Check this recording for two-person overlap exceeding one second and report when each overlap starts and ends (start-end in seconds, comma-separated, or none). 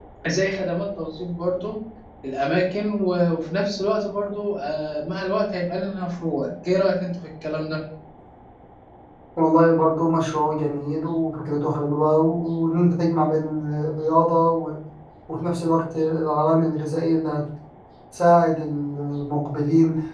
none